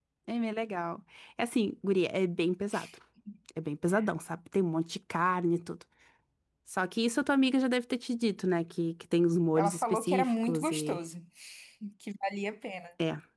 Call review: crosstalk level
present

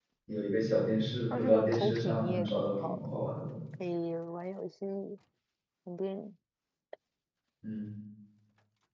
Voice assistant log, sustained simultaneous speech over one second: present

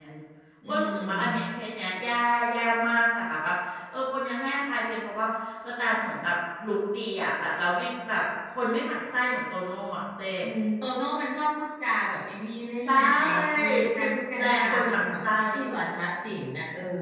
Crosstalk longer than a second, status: present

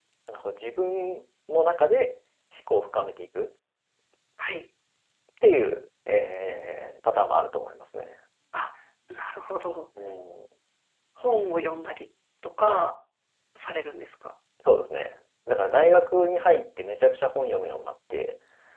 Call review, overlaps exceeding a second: none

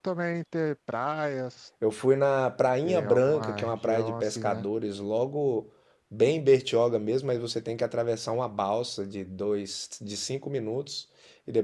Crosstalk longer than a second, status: present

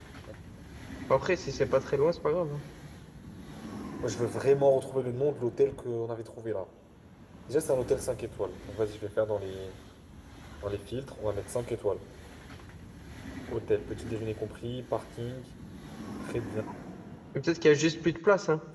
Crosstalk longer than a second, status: none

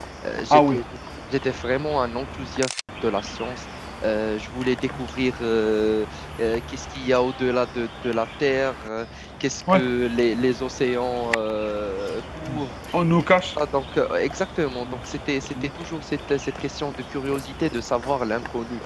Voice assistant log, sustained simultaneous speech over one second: none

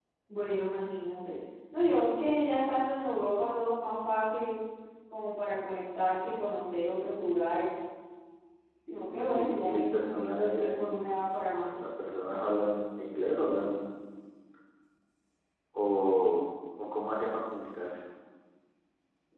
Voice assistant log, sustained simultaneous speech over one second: present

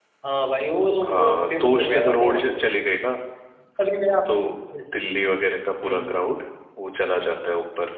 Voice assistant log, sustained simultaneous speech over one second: present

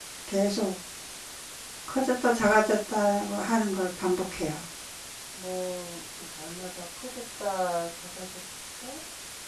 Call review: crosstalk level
none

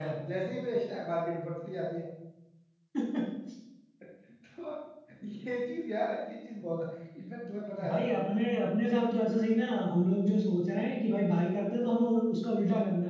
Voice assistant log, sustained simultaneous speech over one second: none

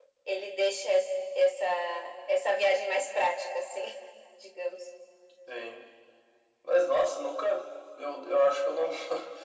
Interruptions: none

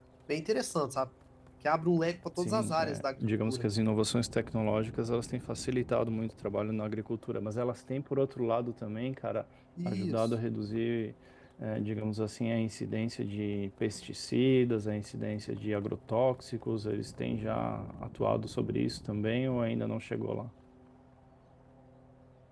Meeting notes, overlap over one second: present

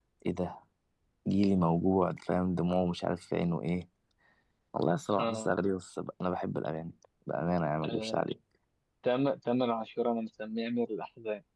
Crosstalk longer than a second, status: none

